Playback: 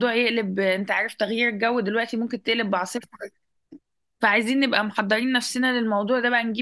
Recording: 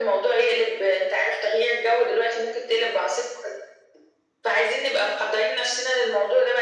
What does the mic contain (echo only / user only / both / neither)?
echo only